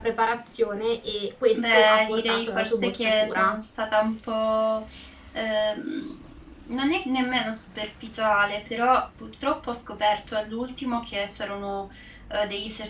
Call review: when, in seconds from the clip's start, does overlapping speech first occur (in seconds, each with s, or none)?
1.5 s